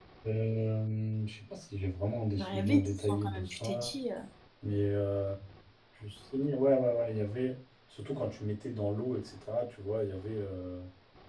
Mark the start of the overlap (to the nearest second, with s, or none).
2 s